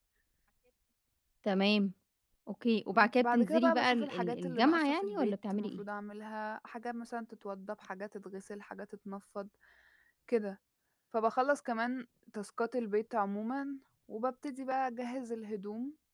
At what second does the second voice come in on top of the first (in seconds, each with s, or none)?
2.9 s